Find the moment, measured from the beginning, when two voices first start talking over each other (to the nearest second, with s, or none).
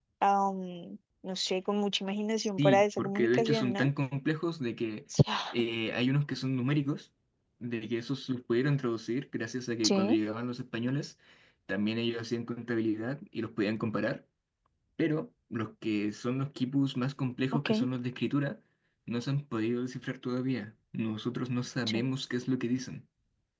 3 s